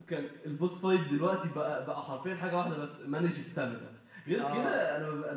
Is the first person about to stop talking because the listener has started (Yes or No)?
No